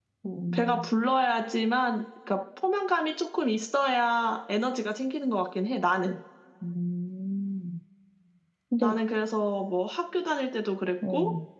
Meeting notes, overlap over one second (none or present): none